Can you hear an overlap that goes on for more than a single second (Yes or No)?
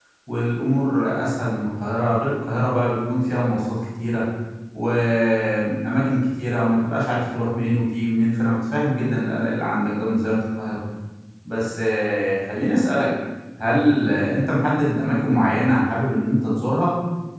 No